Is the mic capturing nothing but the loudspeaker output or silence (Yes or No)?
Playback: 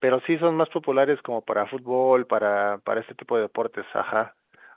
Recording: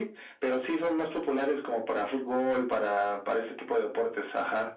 Yes